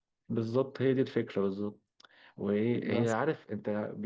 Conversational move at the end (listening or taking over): listening